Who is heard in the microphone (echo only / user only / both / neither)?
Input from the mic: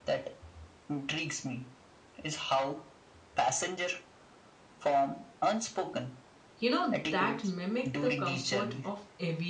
both